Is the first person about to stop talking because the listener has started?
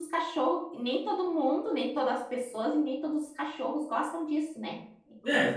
Yes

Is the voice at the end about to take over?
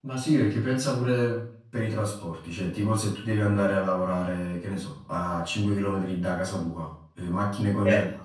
No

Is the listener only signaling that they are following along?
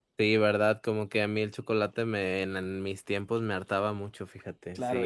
No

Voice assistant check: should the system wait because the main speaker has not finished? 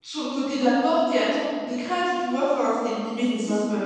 Yes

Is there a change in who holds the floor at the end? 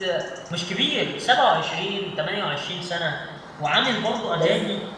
No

